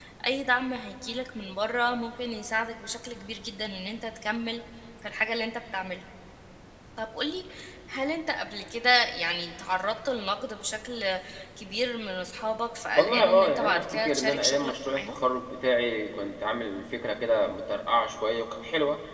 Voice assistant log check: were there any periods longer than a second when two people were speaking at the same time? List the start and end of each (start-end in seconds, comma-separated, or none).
13.0-15.2